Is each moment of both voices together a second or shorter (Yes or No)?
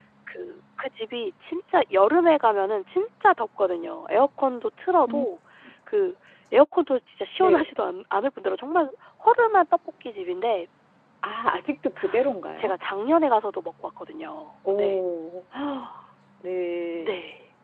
Yes